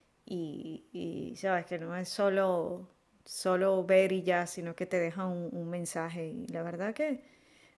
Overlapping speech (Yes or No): No